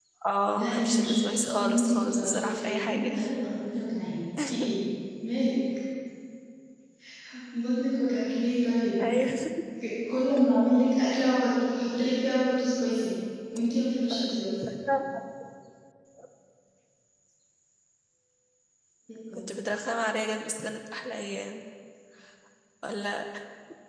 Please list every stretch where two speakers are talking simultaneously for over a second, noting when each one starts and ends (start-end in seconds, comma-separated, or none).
0.6-3.0